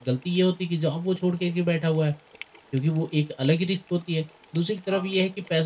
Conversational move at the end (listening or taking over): listening